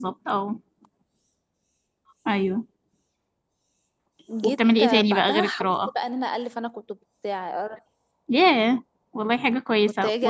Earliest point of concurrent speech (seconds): 4.4 s

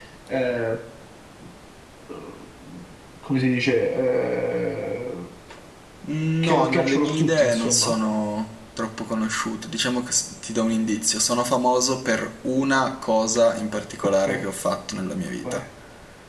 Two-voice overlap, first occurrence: 6.4 s

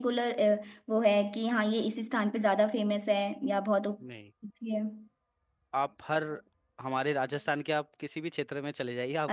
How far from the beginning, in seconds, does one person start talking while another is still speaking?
none

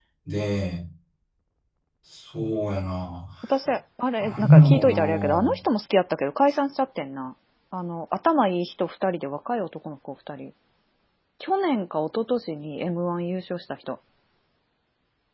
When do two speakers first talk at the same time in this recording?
4.2 s

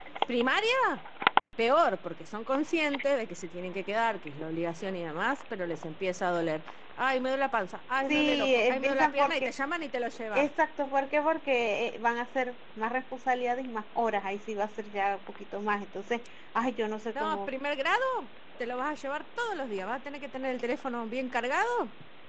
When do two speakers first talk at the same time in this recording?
8.1 s

